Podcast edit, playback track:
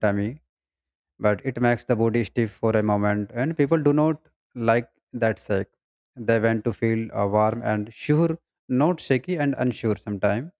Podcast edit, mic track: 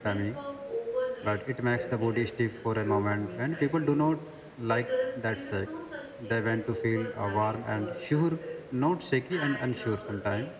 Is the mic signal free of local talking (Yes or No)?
No